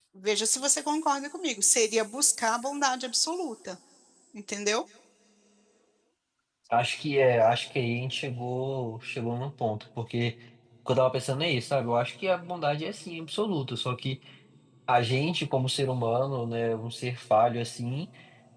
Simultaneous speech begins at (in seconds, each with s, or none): none